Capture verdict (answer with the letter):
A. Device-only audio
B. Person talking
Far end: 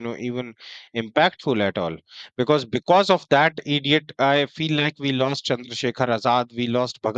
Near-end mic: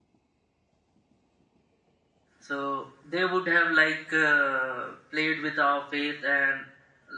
B